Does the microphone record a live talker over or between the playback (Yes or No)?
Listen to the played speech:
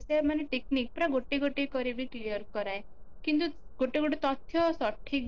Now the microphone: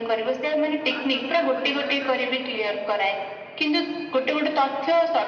Yes